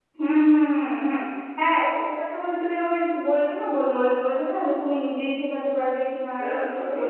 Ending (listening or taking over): taking over